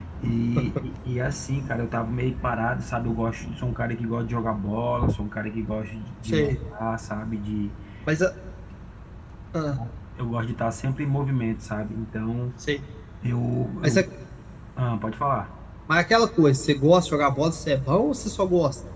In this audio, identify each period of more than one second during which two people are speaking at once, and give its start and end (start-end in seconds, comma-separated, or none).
none